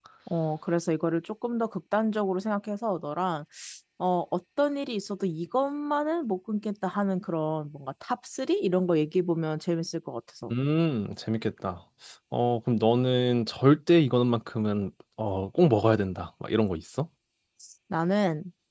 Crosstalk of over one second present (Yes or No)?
No